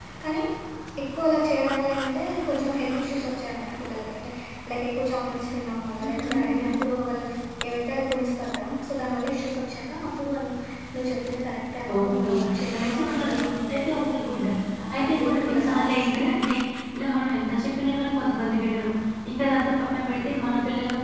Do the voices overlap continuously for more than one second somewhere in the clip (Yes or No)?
Yes